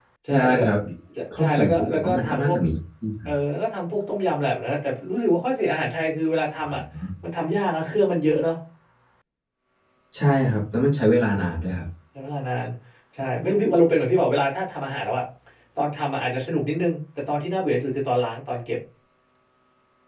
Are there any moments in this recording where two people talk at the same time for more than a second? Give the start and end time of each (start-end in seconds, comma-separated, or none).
1.4-2.6